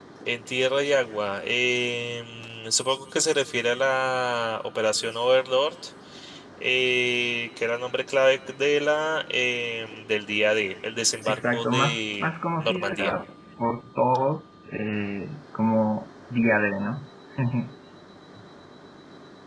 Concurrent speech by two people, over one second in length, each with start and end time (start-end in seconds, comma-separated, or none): 11.2-13.1